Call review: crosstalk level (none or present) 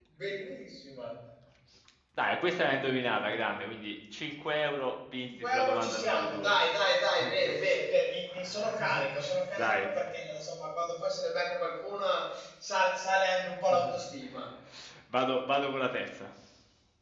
present